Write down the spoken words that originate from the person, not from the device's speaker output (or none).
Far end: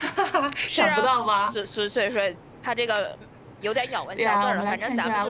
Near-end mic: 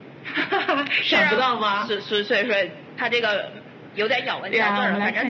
none